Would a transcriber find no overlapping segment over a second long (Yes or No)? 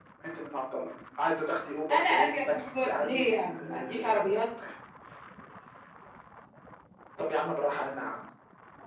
No